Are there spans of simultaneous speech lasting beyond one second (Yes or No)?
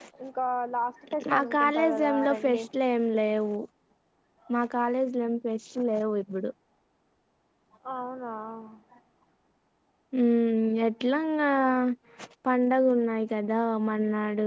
Yes